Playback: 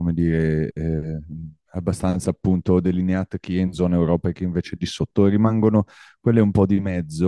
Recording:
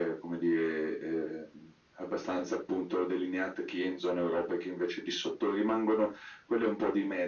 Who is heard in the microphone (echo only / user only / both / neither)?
echo only